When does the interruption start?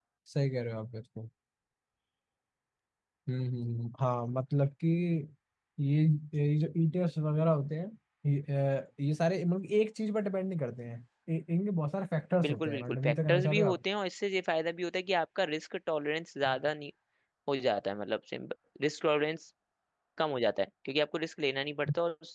12.4 s

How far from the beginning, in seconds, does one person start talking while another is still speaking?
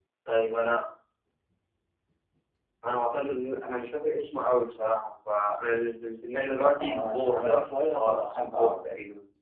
6.5 s

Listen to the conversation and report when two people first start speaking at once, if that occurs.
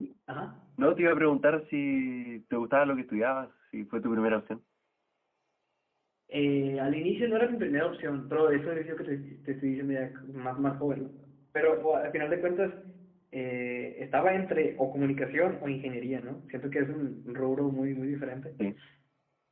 none

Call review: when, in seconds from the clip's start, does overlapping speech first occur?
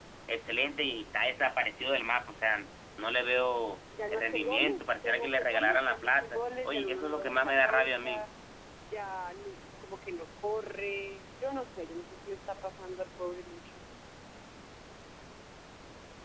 3.9 s

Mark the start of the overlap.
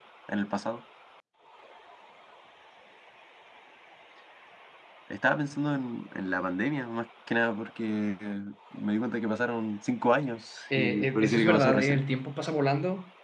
10.7 s

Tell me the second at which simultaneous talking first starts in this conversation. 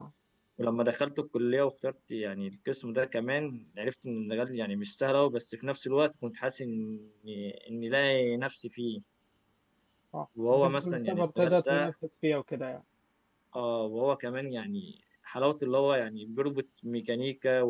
10.5 s

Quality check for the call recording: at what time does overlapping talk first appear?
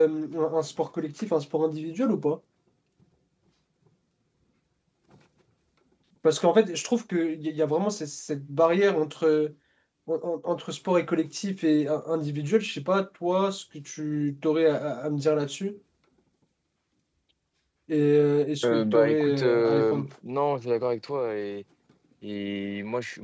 18.6 s

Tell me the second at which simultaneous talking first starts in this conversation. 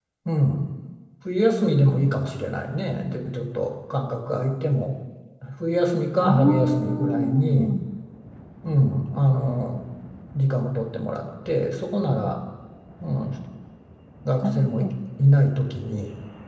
6.2 s

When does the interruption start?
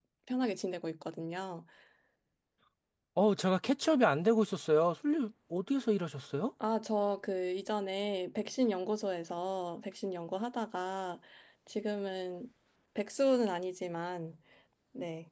none

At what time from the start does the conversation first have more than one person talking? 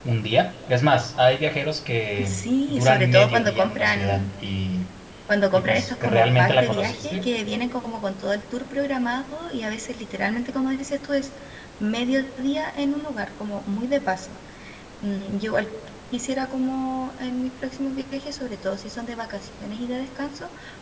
2.2 s

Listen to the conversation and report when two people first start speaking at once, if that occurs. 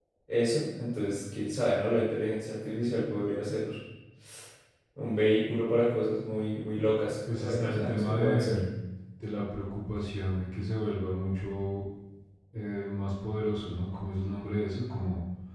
7.3 s

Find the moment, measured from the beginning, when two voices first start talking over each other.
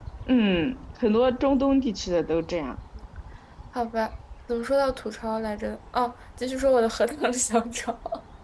none

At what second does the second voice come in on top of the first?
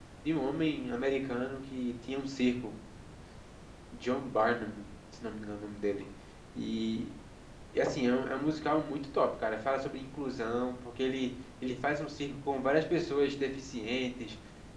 none

